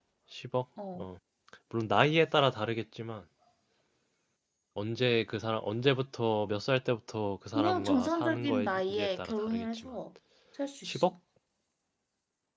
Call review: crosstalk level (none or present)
present